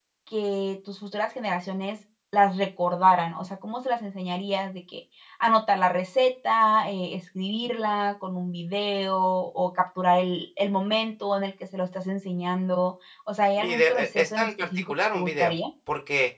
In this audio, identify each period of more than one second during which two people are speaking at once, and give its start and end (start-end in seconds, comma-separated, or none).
13.6-15.6